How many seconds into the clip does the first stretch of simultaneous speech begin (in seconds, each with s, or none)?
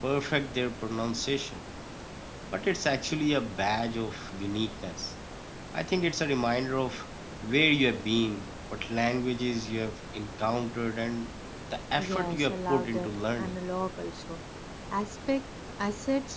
12.0 s